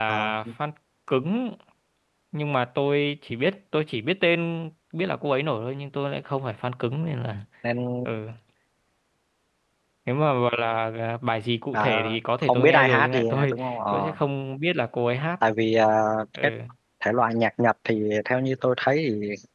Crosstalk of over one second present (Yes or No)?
Yes